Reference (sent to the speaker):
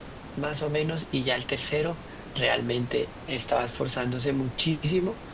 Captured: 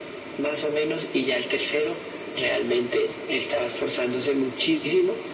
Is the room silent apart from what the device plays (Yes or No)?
Yes